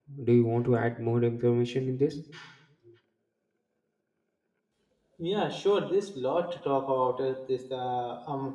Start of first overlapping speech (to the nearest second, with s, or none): none